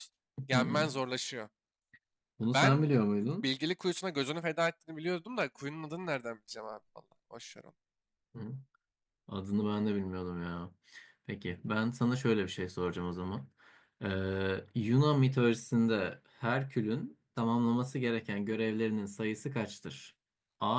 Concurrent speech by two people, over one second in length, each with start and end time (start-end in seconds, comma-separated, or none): none